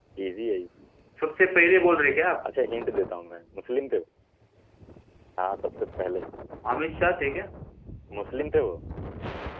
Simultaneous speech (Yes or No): No